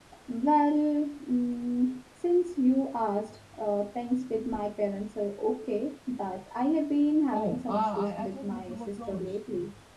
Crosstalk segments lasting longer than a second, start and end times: 7.3-9.3

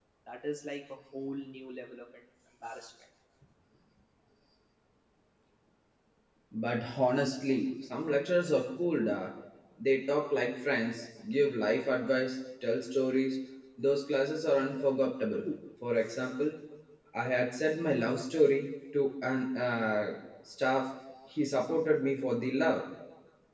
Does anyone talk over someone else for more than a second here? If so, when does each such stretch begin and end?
none

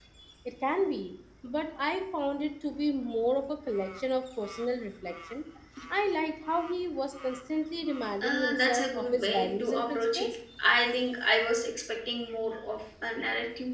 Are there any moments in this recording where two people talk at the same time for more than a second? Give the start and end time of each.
8.2-10.3

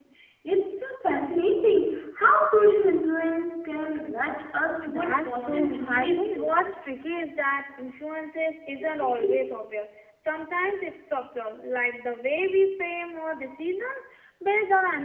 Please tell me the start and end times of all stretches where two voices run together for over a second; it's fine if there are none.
4.9-6.5

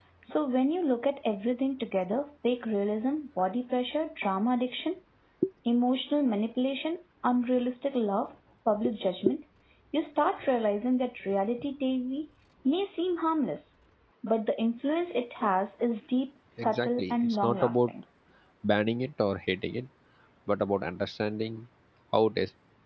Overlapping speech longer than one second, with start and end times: 16.6-17.9

